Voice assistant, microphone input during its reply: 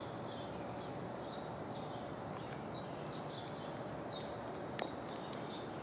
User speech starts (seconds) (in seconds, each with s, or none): none